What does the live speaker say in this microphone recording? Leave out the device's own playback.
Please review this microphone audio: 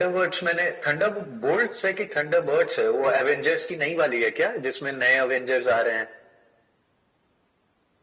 none

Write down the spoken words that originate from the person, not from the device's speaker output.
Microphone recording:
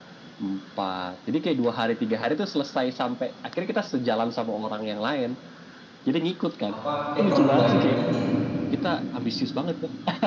apa kayak terlalu banyak ini

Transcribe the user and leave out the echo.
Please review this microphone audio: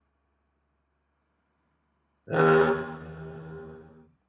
Euh,

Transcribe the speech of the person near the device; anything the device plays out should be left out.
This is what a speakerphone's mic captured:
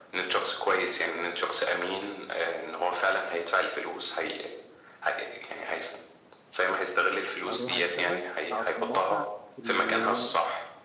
اروح اشتغل اقعد في الموقع اللي

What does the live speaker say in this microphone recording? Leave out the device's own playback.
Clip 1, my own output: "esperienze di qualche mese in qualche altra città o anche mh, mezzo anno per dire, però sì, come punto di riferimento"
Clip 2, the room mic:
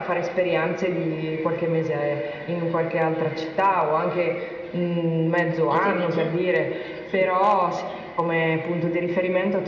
E tu invece? Sì,

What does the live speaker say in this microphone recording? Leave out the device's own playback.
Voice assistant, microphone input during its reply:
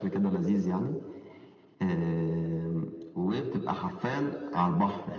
none

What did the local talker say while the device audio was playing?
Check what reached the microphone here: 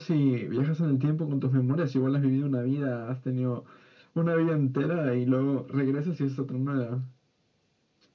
none

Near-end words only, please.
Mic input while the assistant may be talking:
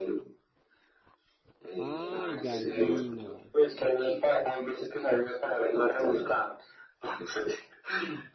¡Ay, gallina!

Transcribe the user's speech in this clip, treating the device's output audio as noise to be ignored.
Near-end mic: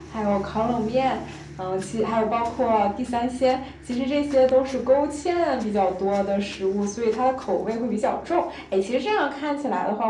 none

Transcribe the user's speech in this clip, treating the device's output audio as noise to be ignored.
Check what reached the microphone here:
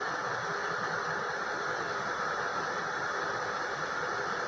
none

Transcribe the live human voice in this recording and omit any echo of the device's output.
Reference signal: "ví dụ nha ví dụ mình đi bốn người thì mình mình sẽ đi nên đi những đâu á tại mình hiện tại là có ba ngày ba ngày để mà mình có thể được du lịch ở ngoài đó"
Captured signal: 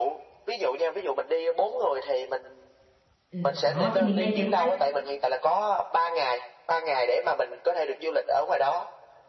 Ừ, đó thì mình lên kế hoạch.

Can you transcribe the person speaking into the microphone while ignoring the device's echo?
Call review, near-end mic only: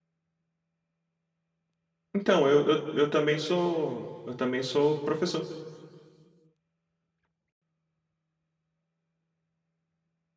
Então, eu, eu, eu também sou eu também sou professor,

